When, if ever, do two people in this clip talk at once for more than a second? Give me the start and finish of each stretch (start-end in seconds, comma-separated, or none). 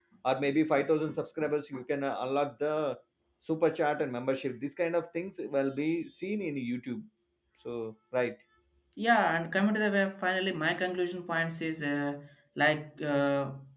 none